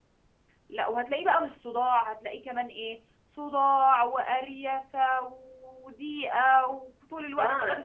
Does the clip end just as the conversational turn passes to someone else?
Yes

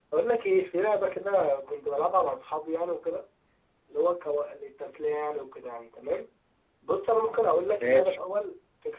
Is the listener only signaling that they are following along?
Yes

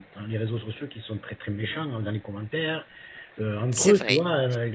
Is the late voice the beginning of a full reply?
No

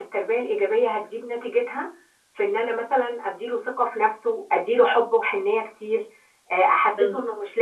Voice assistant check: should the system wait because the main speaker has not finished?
Yes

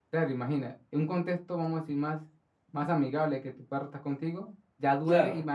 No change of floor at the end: Yes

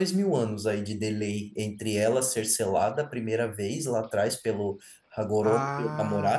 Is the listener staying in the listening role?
No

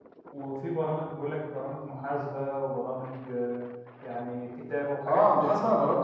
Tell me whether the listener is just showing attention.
No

